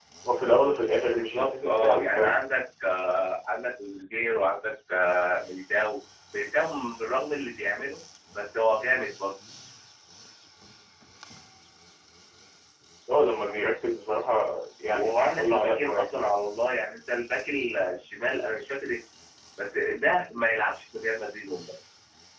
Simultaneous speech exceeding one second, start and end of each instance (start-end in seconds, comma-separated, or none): 1.1-2.4, 14.9-16.3